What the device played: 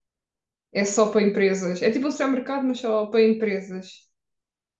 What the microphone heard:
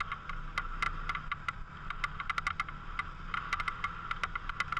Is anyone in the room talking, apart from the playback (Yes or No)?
No